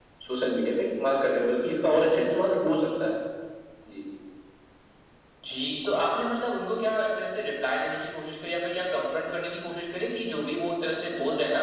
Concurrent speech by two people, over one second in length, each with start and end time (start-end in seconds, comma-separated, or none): none